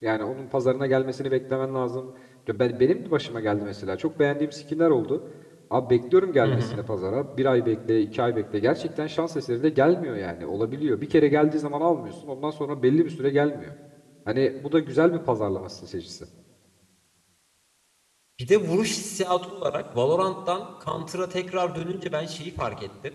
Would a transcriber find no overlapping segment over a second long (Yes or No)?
Yes